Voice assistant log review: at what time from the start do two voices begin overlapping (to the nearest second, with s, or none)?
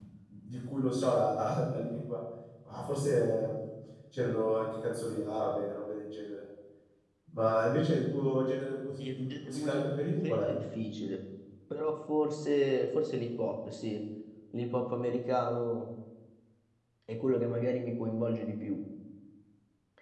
9 s